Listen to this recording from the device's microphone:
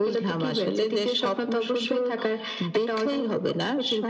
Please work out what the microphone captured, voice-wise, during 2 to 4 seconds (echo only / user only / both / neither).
echo only